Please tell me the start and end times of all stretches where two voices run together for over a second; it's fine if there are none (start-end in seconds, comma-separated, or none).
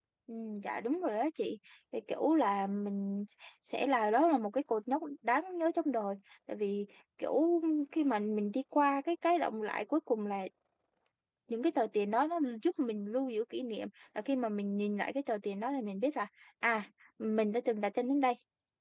none